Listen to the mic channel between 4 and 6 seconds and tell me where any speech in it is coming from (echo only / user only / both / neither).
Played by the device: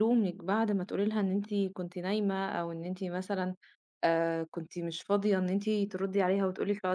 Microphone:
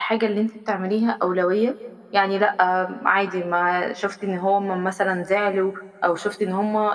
user only